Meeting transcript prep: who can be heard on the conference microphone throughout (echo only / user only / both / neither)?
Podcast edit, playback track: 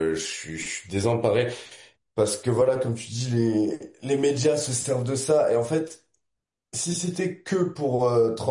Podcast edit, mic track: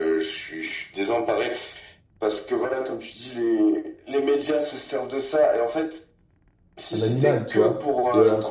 both